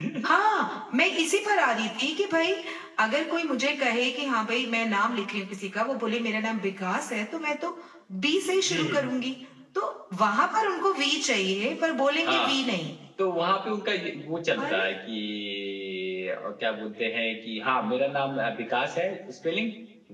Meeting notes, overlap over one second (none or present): none